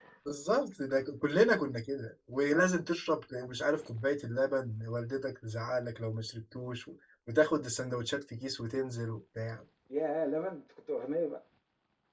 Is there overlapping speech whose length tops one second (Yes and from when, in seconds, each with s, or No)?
No